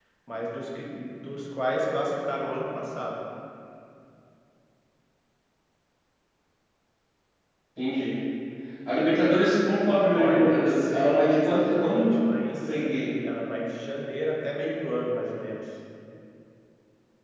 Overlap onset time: 10.1 s

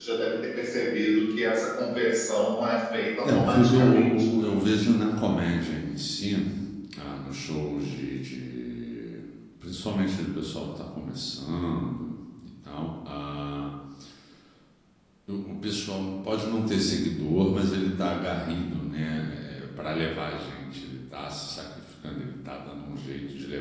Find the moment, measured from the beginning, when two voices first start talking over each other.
3.2 s

